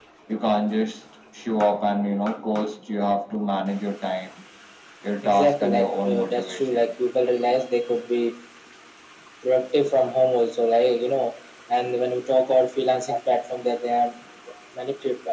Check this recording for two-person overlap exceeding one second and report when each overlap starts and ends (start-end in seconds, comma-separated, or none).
5.2-6.9